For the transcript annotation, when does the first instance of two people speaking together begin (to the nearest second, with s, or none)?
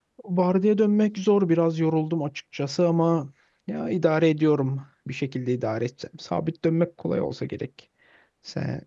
none